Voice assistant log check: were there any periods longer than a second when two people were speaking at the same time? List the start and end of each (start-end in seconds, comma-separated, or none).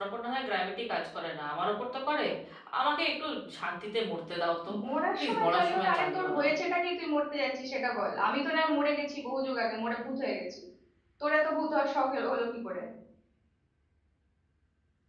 5.2-6.4